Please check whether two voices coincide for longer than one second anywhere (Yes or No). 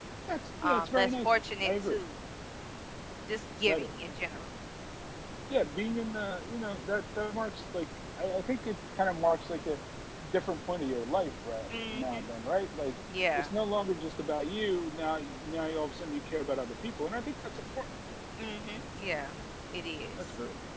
Yes